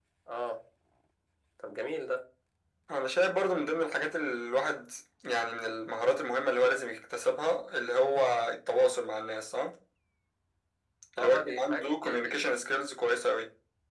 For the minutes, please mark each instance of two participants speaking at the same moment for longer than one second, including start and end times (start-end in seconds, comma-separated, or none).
11.2-12.4